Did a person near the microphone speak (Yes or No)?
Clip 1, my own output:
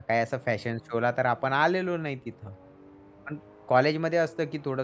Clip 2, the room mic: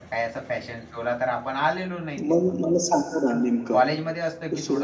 Yes